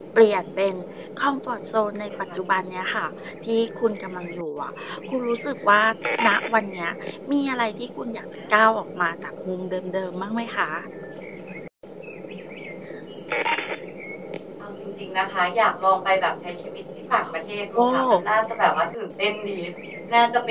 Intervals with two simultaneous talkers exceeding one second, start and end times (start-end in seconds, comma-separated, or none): none